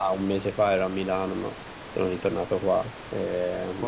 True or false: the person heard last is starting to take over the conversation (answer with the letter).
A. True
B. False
A